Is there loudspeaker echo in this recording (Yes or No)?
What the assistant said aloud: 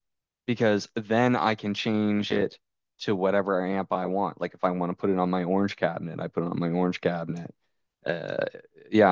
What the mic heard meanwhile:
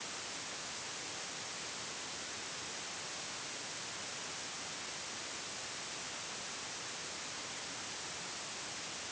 No